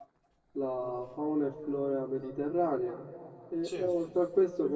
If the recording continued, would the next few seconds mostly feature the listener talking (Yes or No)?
No